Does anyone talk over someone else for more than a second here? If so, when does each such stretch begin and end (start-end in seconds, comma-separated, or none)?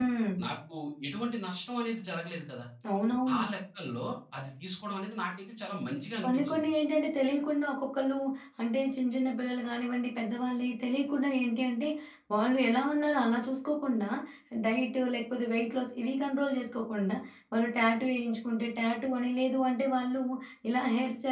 none